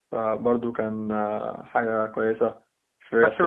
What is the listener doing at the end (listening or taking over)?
taking over